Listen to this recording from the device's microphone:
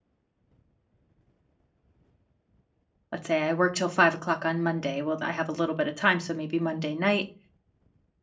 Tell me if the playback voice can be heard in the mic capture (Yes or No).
No